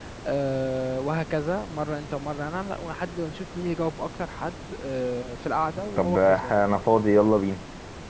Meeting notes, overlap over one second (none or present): none